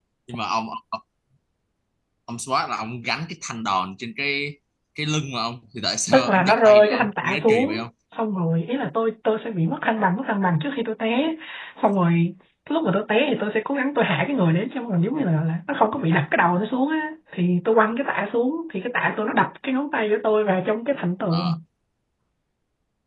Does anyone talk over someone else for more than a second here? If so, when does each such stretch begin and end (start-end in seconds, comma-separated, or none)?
6.1-7.8